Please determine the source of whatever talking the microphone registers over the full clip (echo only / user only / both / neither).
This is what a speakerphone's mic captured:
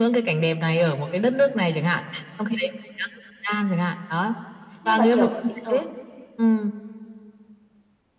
both